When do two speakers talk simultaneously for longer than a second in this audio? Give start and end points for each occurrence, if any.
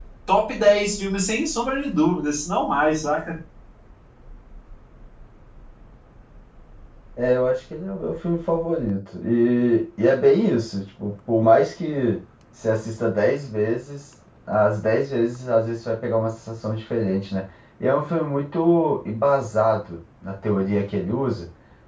none

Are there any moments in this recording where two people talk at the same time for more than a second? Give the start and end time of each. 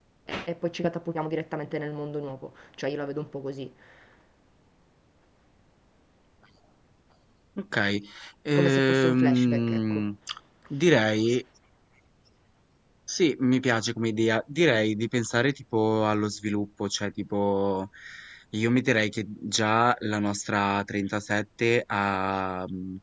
8.5-10.0

